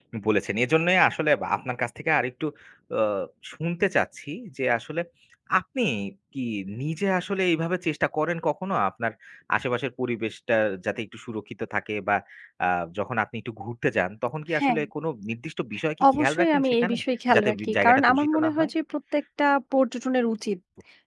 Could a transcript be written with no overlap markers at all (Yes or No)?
No